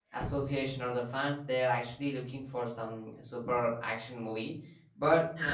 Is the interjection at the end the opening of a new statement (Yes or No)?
No